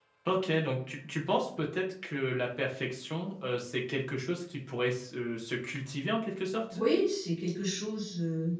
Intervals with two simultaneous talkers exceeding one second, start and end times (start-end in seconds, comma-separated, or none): none